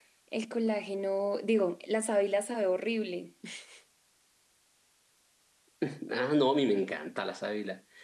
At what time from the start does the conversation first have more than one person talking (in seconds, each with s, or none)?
none